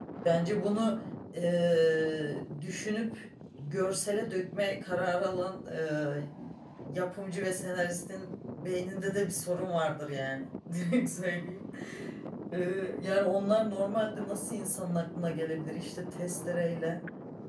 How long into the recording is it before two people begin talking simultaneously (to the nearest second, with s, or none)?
none